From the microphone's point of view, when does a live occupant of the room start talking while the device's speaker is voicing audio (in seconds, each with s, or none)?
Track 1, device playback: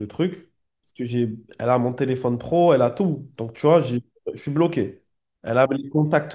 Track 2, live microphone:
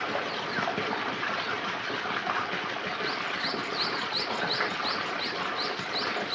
none